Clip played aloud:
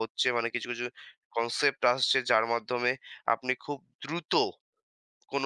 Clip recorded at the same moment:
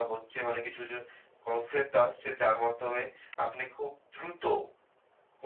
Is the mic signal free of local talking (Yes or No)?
Yes